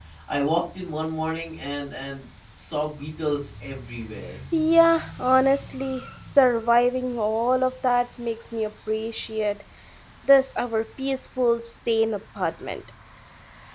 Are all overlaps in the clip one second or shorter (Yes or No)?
Yes